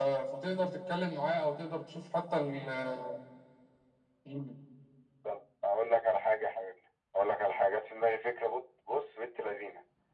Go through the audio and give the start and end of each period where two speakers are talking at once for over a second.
none

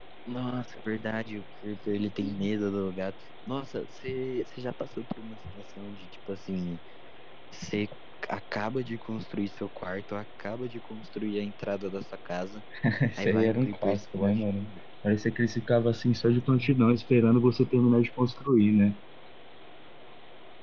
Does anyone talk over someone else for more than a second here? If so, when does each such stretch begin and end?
13.2-14.7

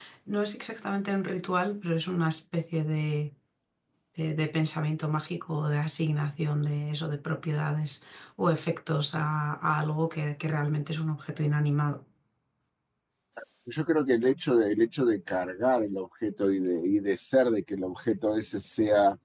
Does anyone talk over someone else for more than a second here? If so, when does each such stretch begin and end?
none

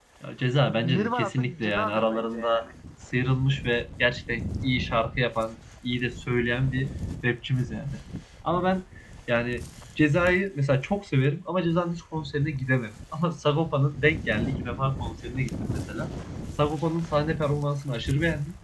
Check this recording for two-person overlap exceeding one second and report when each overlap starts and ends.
0.7-2.6

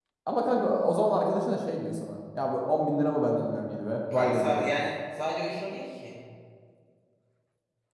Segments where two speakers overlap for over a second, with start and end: none

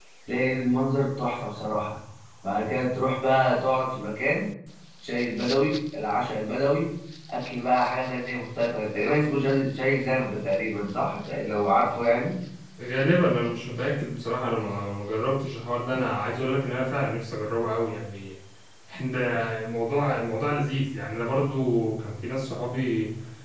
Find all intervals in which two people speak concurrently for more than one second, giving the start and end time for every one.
none

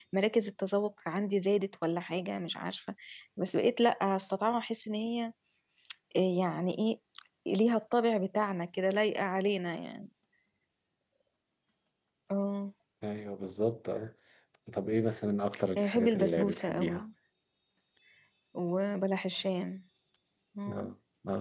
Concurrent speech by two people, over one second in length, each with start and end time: 15.8-17.0

